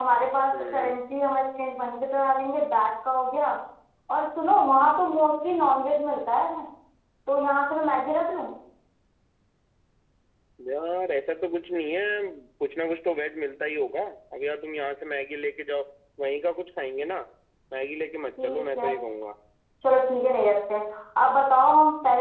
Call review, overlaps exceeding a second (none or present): none